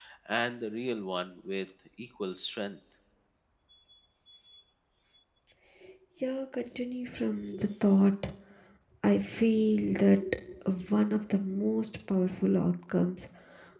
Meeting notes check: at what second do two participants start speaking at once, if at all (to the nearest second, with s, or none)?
none